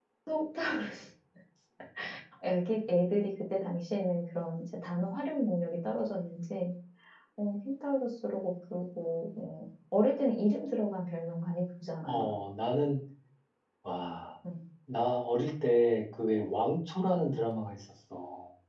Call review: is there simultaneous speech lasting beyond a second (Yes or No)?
No